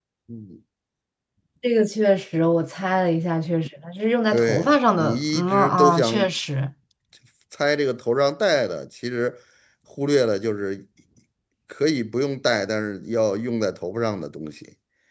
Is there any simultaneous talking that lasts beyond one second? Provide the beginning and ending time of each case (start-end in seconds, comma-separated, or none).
4.3-6.3